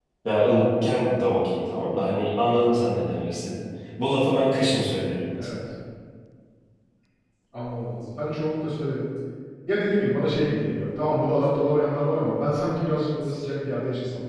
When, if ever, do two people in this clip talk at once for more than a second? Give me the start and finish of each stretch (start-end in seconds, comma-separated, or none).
none